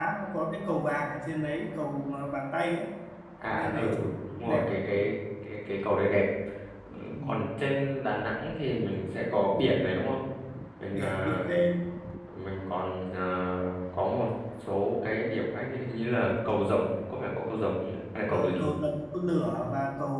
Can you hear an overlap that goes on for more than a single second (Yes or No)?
Yes